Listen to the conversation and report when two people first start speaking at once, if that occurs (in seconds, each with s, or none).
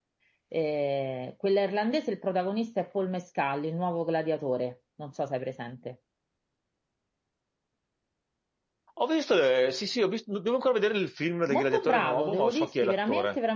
11.5 s